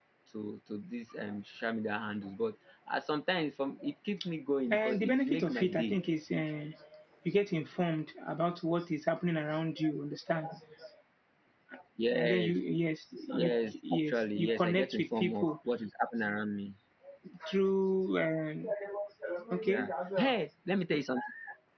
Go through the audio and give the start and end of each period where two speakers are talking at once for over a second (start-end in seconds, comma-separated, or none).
4.7-6.0, 13.4-15.6